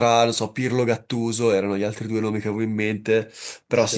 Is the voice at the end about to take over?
No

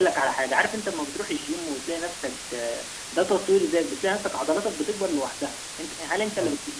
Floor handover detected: No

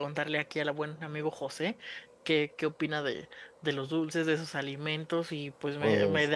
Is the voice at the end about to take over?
No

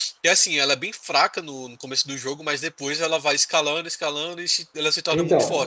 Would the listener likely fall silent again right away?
No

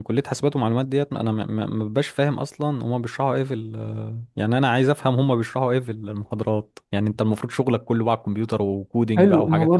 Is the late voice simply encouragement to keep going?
No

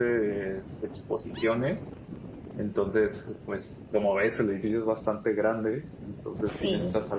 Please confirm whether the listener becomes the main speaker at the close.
No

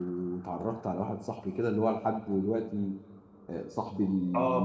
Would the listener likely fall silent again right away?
No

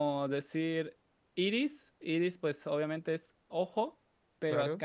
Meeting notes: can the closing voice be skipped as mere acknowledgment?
Yes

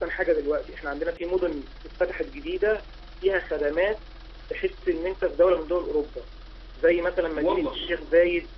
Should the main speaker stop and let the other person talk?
No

